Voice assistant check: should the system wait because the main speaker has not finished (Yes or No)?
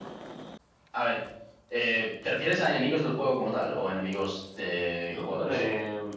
No